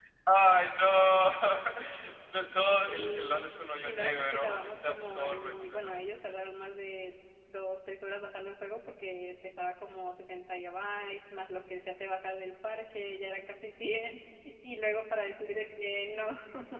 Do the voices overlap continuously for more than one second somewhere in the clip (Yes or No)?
Yes